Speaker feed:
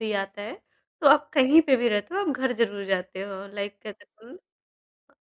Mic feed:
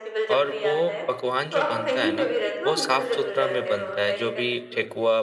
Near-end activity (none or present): present